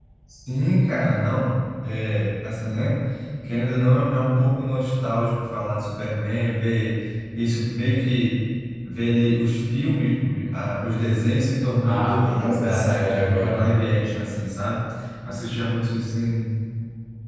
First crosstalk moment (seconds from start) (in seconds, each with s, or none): 11.8 s